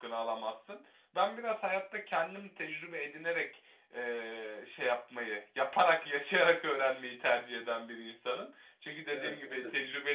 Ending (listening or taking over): listening